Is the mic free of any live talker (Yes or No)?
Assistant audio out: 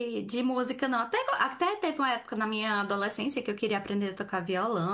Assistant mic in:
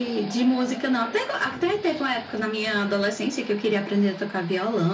Yes